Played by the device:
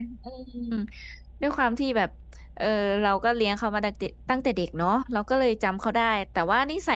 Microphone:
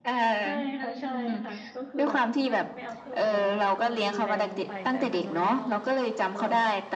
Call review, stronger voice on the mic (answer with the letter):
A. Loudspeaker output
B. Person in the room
A